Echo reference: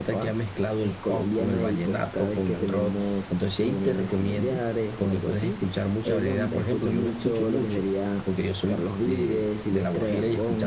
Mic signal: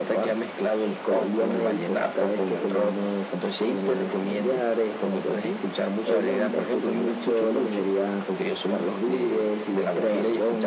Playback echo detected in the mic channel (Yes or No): Yes